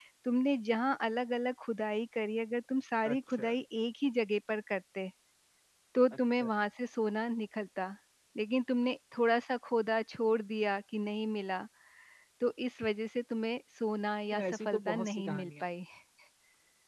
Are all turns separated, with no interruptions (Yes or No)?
No